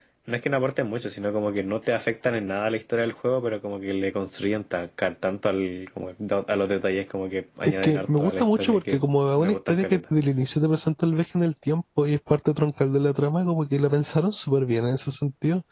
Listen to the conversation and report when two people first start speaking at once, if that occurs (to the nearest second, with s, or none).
8 s